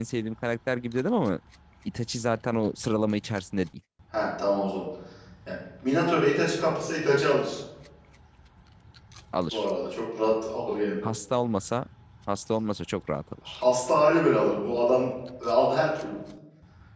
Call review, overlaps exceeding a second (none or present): none